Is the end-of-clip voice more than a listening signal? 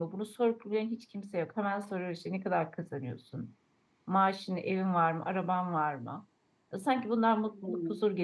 Yes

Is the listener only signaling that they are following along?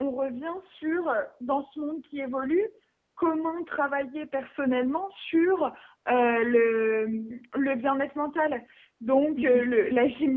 Yes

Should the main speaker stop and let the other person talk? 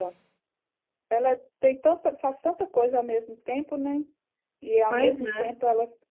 No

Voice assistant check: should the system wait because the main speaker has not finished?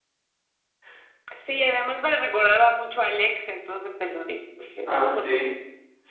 No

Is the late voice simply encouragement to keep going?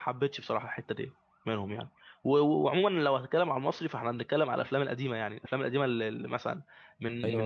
No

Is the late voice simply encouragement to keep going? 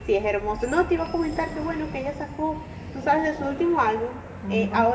Yes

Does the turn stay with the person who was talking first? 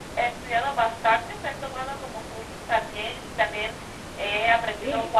Yes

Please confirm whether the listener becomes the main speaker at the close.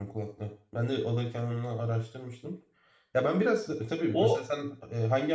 No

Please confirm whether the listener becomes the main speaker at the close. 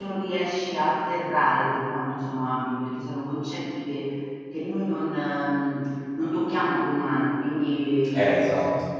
No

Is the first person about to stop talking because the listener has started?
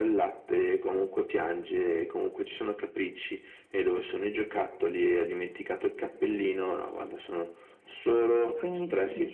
Yes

